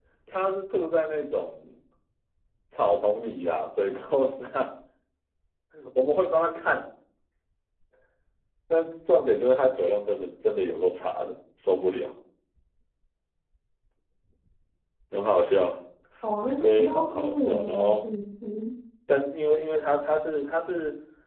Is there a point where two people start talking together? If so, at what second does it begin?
16.6 s

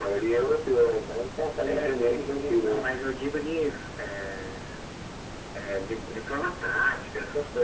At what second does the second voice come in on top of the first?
1.6 s

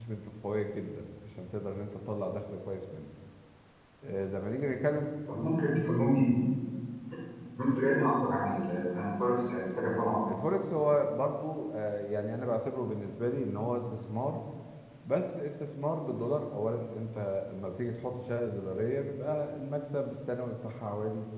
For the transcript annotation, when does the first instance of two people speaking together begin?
none

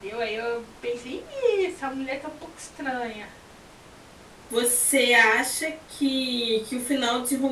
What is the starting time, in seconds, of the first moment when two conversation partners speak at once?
none

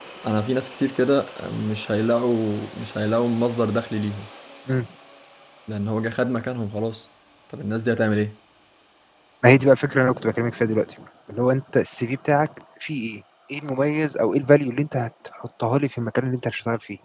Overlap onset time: none

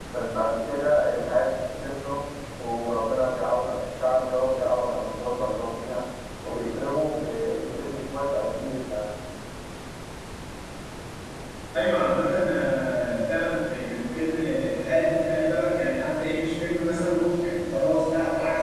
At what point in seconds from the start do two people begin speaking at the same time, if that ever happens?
none

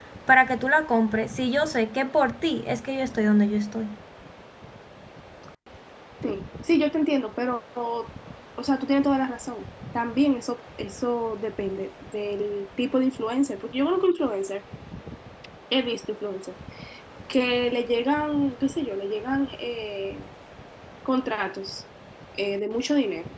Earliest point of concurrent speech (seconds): none

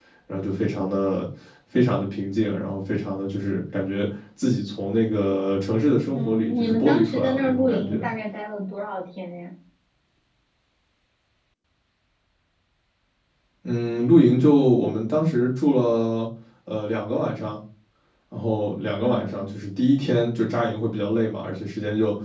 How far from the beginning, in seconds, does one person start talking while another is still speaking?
6.1 s

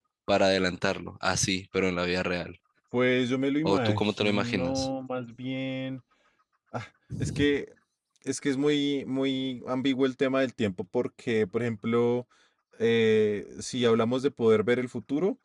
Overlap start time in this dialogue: 3.6 s

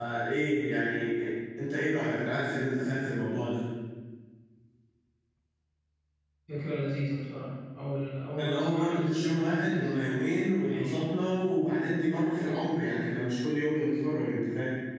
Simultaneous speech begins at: 8.4 s

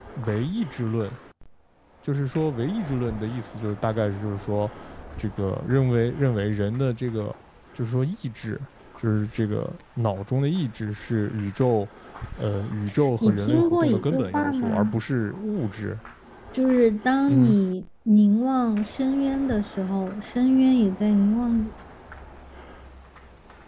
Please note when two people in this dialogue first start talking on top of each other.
13.2 s

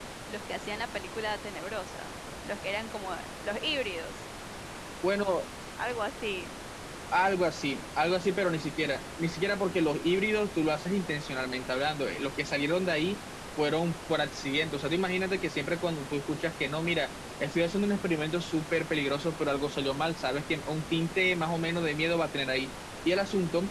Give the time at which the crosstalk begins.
none

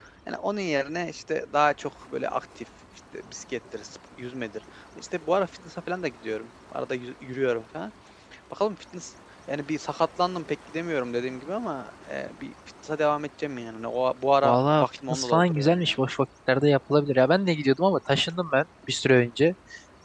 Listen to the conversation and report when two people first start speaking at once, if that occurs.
14.4 s

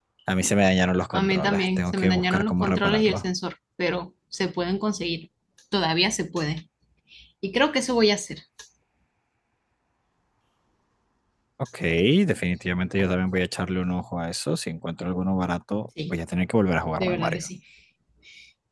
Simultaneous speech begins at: 1.1 s

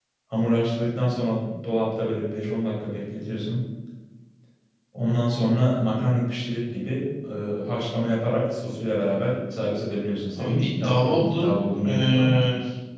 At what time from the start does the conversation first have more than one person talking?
10.4 s

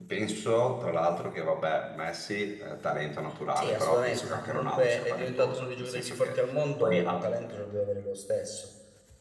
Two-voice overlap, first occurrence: 3.6 s

